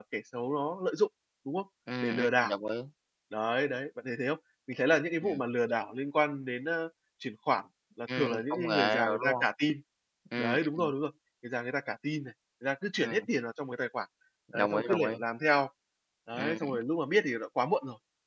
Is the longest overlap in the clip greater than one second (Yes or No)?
Yes